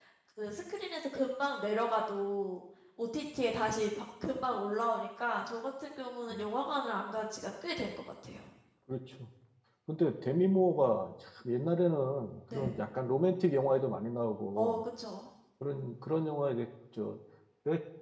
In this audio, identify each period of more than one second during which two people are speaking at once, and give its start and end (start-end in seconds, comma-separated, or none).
none